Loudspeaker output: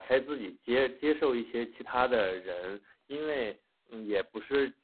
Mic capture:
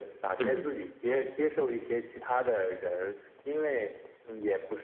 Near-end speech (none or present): present